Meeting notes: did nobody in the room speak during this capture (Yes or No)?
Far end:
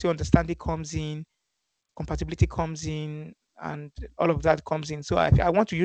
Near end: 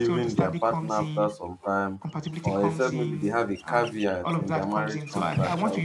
No